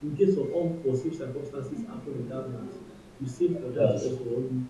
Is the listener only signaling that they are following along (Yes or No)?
Yes